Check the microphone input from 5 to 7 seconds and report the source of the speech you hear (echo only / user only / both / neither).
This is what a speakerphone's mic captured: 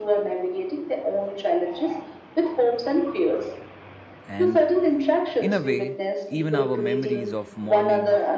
both